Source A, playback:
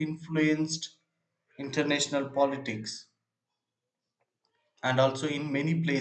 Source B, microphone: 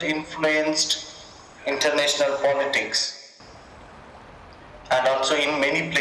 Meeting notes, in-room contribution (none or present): none